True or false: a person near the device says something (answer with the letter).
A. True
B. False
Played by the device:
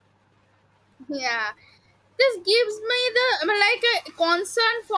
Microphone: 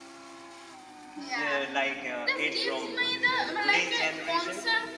A